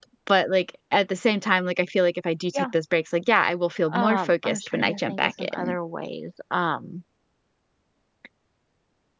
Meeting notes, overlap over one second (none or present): present